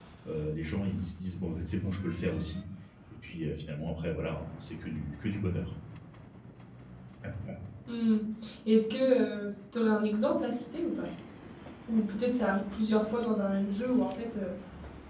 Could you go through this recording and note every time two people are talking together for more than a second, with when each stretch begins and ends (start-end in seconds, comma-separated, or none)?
none